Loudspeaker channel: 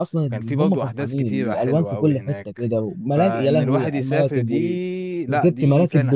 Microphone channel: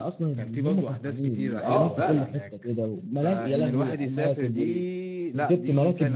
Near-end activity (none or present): present